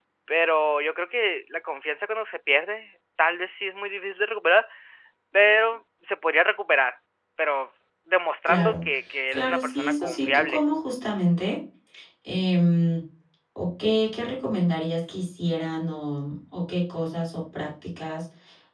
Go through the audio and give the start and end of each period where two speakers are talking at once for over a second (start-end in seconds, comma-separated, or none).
9.3-10.6